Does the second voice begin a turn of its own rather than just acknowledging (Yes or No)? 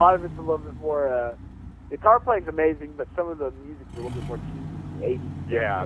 Yes